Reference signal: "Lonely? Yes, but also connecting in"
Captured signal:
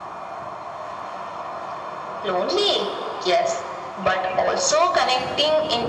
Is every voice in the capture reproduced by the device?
Yes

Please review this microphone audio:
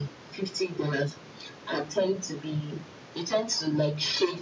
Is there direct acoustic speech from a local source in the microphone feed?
No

